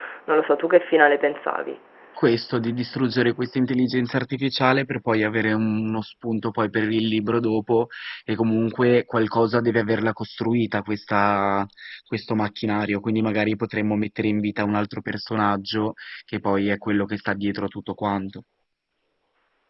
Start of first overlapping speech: none

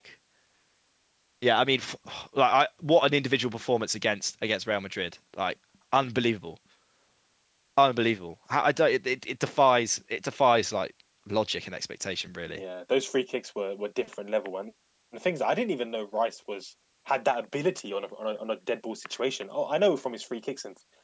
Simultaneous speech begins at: none

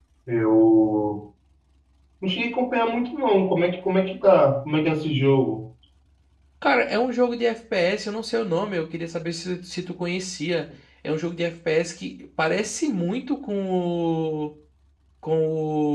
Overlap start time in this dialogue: none

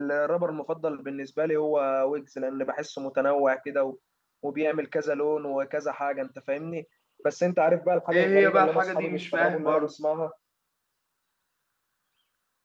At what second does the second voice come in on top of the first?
8.1 s

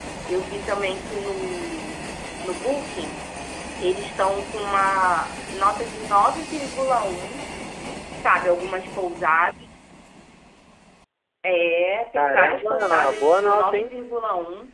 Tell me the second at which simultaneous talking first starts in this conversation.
12.2 s

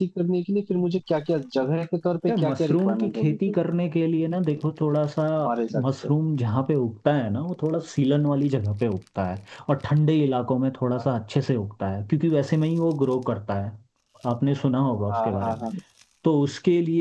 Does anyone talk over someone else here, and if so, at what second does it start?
2.3 s

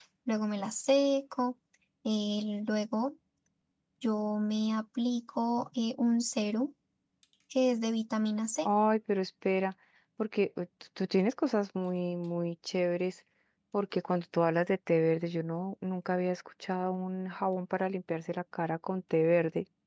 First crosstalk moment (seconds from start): none

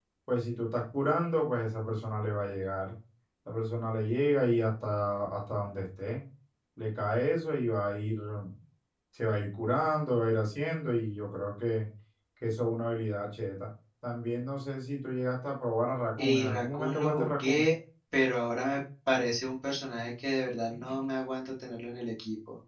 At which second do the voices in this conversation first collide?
16.2 s

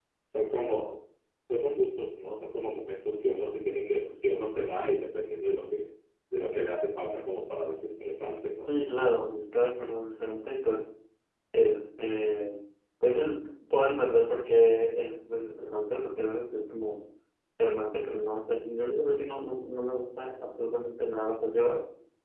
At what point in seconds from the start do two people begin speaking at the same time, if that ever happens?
none

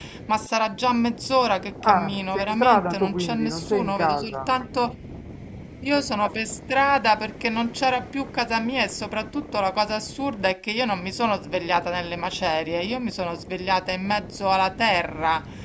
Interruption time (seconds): 1.8 s

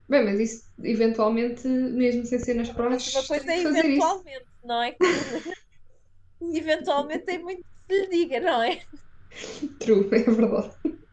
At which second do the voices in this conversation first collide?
2.9 s

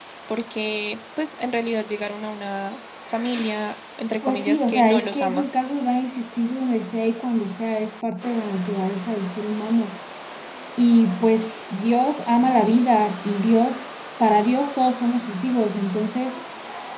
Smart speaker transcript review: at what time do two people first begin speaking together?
4.2 s

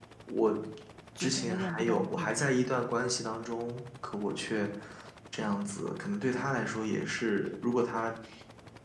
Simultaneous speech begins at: 1.2 s

